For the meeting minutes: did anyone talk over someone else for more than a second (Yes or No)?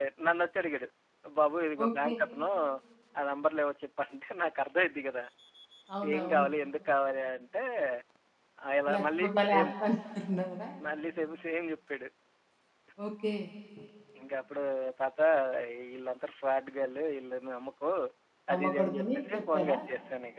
Yes